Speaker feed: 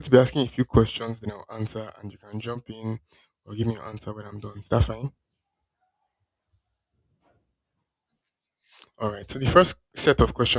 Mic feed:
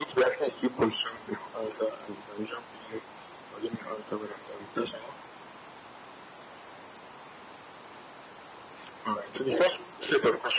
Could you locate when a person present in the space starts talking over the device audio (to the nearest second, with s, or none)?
none